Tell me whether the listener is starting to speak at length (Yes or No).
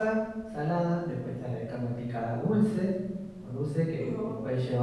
No